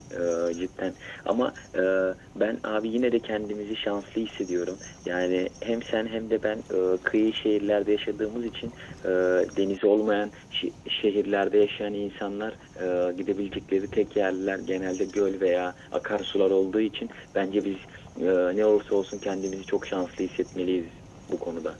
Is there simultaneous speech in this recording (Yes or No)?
No